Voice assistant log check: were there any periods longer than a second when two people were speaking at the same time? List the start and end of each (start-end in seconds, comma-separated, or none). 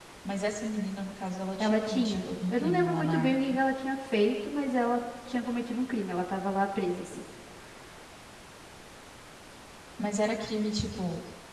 1.6-3.6